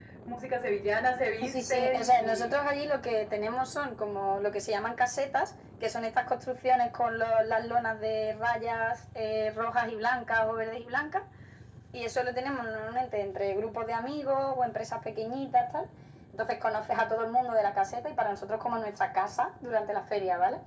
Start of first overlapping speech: 1.4 s

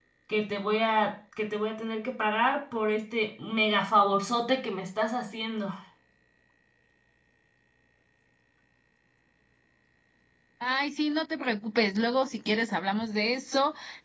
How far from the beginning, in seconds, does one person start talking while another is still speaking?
none

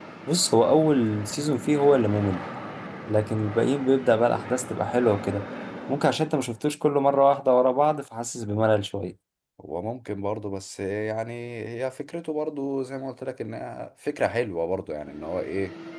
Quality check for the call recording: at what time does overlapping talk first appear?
none

